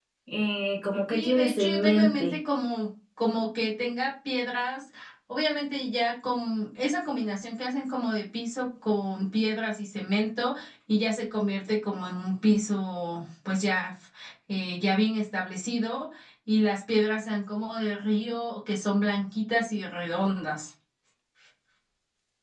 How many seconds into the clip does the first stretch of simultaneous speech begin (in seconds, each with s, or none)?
1.1 s